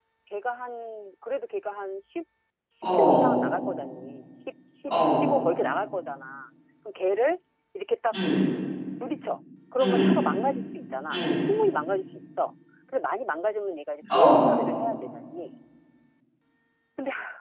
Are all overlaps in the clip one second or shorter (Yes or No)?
Yes